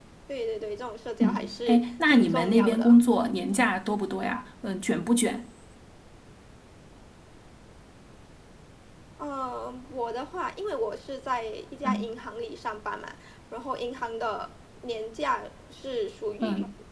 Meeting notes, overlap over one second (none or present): present